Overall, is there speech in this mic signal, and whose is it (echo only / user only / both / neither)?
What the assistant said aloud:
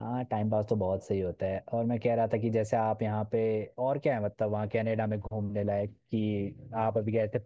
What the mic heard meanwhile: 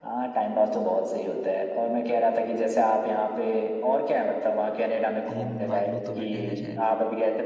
both